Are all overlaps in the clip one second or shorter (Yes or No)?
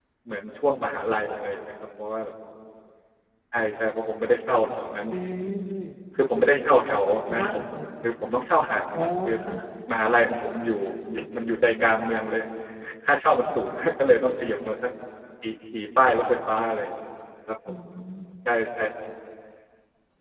Yes